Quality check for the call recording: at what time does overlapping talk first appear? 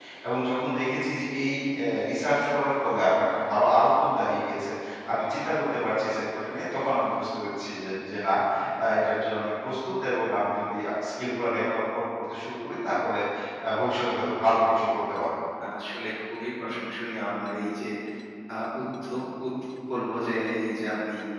none

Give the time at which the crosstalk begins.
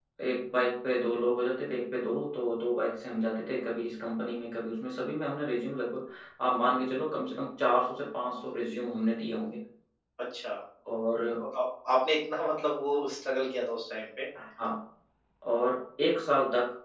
none

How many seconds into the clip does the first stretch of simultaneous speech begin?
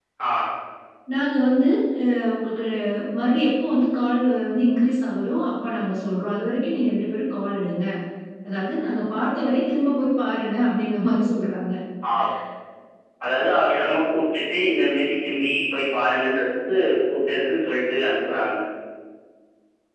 none

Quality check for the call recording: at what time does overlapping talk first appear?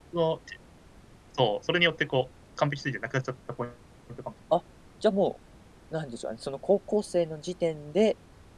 none

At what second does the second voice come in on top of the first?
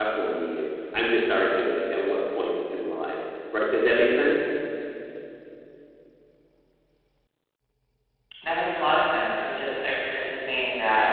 none

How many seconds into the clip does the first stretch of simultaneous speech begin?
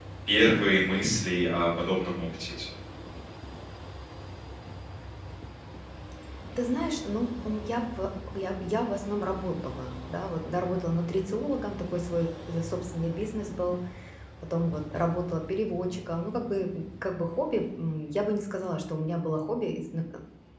none

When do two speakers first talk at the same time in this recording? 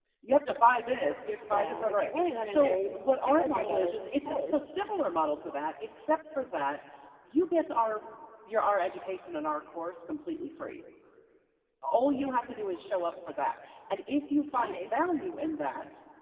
1.5 s

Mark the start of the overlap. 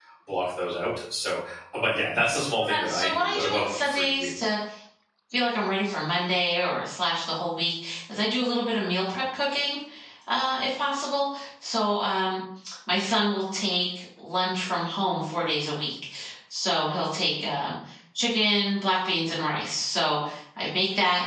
2.6 s

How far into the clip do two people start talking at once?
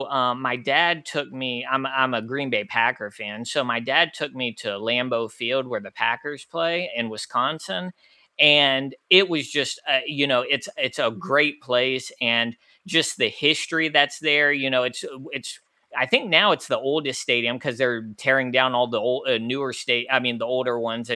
none

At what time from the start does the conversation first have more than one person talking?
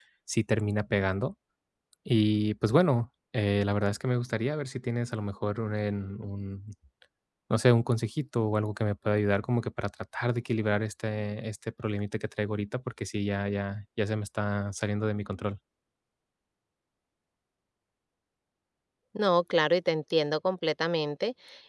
none

